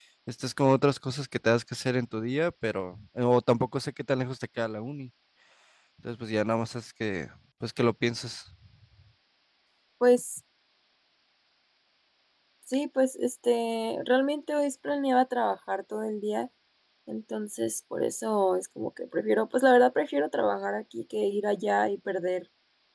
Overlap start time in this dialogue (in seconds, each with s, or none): none